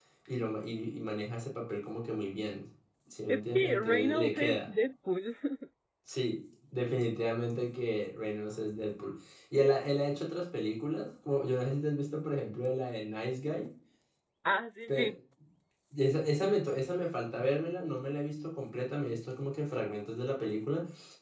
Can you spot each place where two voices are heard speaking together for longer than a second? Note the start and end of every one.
3.3-4.7

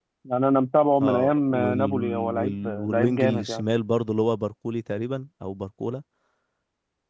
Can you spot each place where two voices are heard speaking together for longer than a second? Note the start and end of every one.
1.0-3.6

